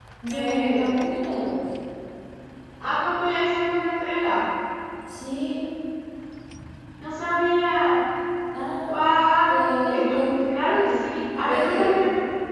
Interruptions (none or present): present